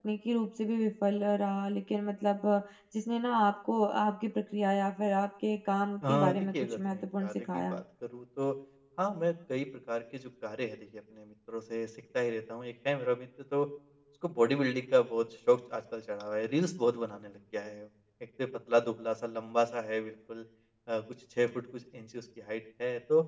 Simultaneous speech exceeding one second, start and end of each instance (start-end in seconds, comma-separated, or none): 6.1-7.8